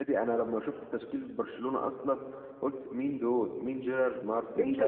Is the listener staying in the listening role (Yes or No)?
No